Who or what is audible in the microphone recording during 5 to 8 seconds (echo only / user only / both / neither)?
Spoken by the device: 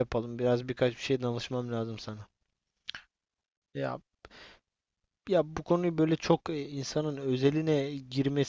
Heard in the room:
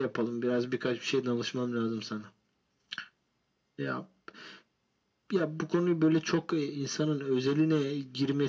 echo only